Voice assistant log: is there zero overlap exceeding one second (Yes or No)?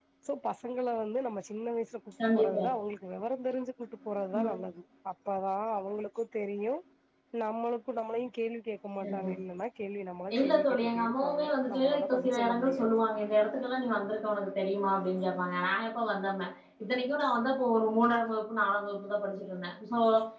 No